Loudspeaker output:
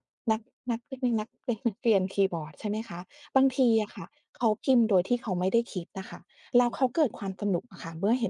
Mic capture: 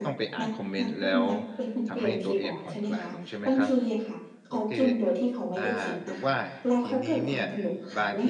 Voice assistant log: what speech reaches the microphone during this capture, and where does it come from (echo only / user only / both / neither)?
both